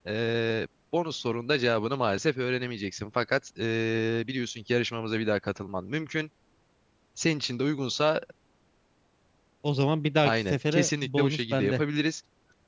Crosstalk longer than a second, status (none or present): present